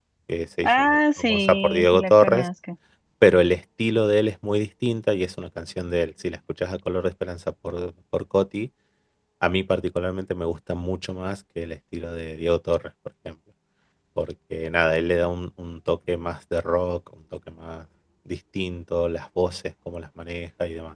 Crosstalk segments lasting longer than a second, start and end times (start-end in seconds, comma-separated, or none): 0.6-2.5